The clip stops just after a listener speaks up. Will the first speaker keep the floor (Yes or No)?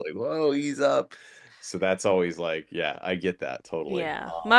No